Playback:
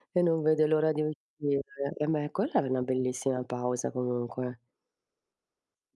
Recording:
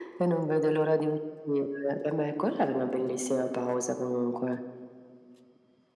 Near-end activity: none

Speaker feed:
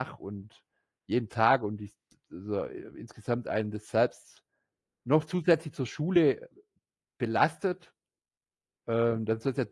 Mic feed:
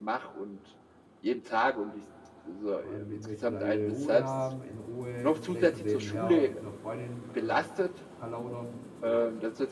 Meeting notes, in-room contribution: present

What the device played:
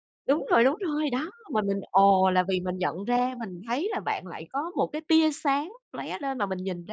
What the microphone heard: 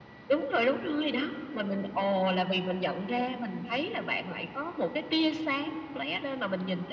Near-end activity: none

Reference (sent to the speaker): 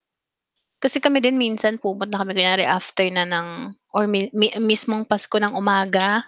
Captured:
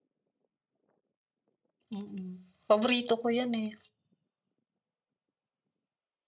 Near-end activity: present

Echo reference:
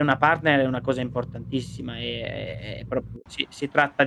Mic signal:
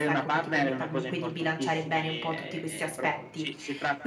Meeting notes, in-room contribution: present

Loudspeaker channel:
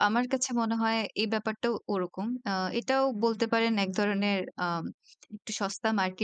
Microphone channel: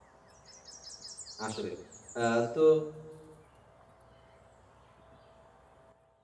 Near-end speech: present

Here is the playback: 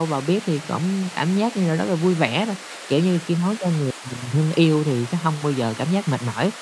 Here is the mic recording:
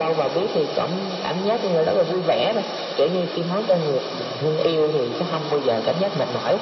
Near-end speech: none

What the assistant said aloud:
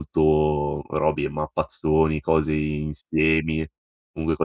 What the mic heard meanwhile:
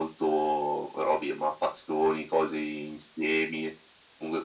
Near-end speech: none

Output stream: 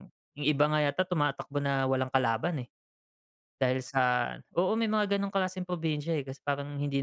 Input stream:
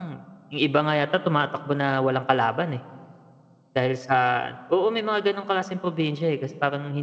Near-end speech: none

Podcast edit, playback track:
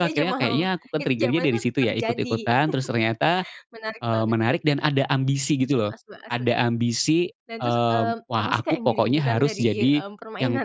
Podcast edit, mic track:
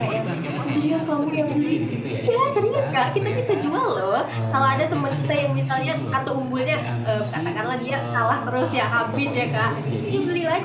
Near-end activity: present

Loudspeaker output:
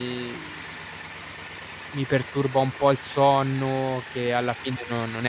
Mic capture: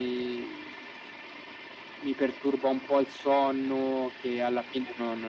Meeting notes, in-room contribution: none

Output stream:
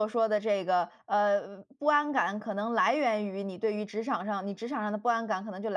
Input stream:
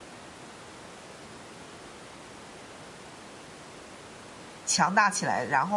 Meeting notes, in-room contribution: present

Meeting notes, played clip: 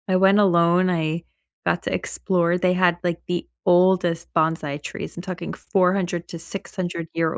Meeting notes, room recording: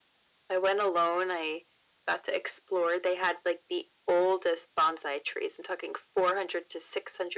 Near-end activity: none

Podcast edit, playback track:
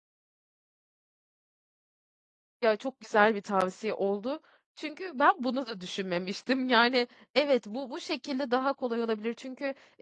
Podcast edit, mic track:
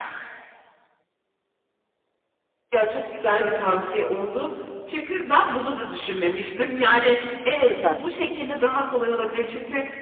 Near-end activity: present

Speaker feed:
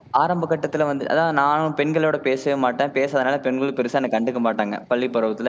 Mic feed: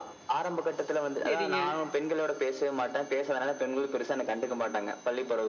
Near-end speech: present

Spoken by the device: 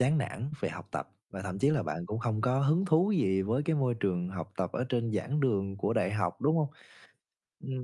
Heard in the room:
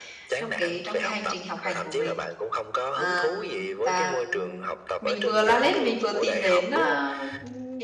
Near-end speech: present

